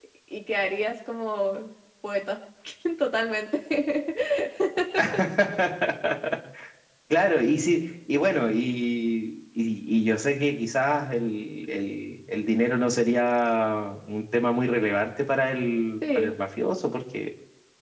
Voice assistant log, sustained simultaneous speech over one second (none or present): none